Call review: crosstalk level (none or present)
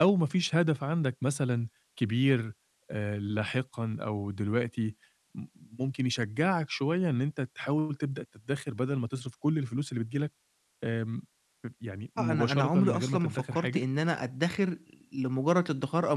present